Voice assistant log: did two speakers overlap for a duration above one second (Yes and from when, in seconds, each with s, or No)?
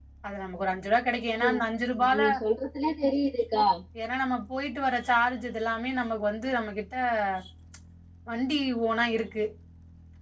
No